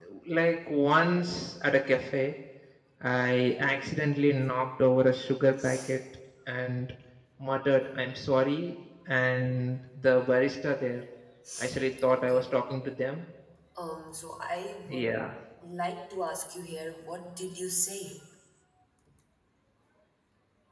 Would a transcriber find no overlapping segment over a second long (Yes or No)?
Yes